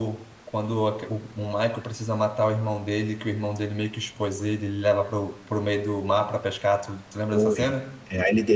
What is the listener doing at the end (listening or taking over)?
taking over